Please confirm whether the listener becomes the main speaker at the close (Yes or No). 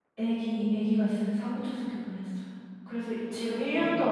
No